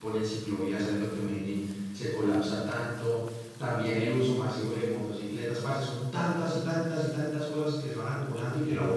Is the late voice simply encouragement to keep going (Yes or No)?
Yes